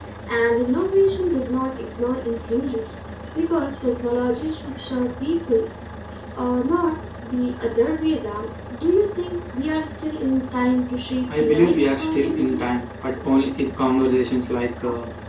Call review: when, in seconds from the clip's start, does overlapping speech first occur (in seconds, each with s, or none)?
11.3 s